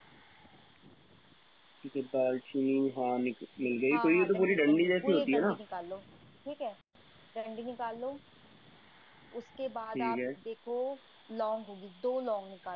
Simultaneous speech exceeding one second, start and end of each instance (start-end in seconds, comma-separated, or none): 3.9-5.6